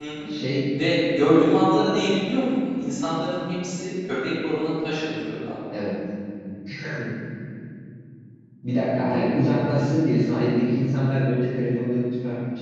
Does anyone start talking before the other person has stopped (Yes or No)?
No